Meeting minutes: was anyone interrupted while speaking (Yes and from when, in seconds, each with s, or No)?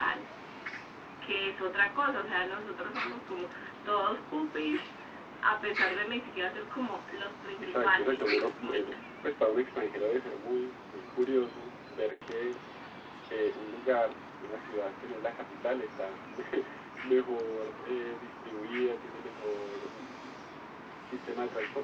Yes, from 7.6 s